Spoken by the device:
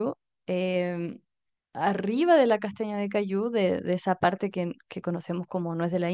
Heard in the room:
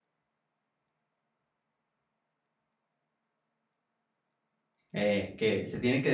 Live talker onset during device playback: 4.9 s

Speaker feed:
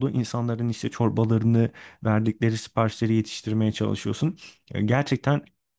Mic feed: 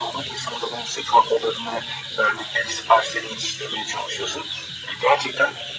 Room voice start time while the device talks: none

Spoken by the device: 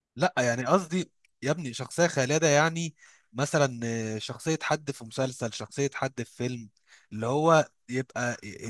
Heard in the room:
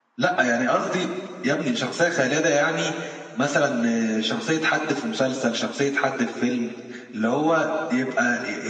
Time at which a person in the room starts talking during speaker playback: none

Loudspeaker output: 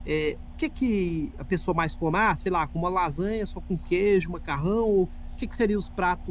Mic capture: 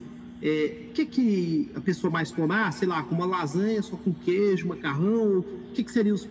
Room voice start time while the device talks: none

